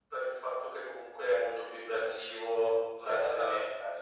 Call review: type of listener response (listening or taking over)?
taking over